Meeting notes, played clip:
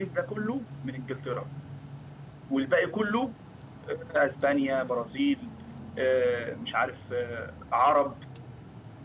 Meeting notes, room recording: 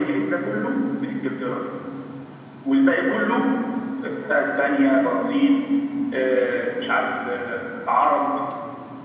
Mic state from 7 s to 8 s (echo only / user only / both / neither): echo only